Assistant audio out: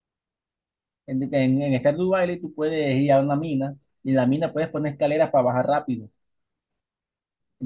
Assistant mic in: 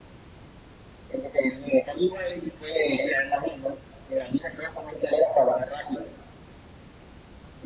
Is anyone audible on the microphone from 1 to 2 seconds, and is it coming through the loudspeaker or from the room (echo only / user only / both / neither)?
echo only